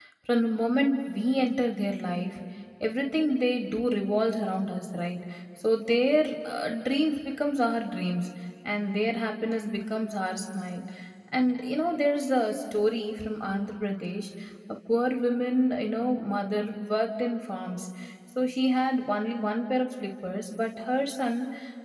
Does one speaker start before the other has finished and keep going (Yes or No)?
No